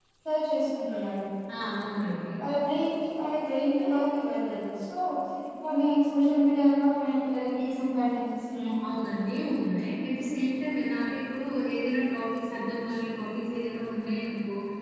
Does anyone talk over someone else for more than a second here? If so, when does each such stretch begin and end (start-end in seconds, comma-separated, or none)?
none